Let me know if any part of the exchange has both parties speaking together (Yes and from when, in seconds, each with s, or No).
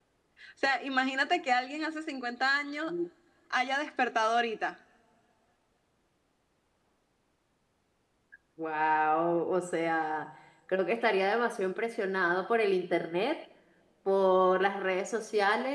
No